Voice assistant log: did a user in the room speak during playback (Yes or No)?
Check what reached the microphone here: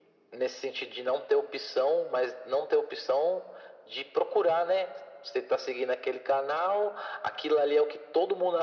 No